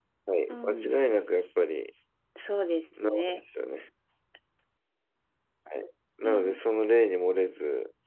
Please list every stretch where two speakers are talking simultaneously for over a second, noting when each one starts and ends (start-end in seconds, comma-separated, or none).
none